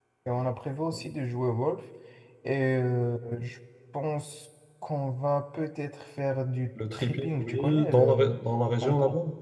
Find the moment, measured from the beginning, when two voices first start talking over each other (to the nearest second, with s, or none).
7 s